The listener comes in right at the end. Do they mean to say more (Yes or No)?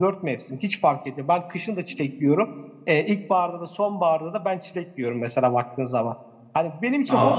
No